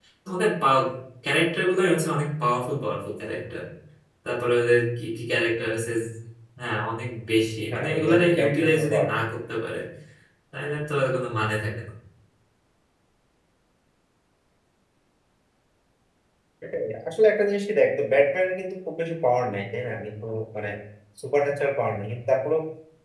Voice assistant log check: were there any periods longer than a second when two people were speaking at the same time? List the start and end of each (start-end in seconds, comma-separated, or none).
7.7-9.3